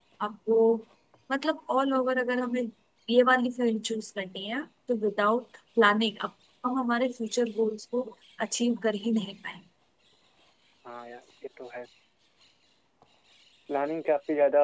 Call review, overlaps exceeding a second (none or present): none